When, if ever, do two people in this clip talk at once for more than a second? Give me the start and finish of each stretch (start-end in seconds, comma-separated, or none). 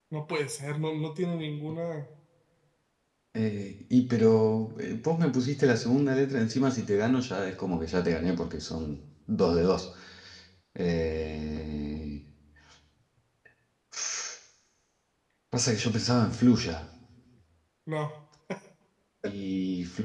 none